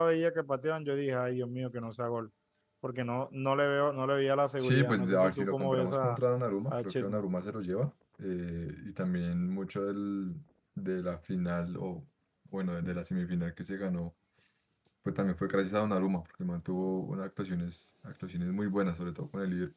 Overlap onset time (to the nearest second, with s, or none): 5 s